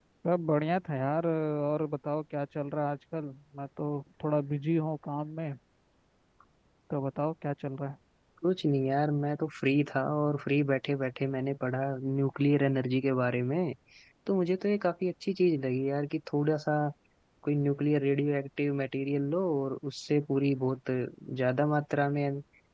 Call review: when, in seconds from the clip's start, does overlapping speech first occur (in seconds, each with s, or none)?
none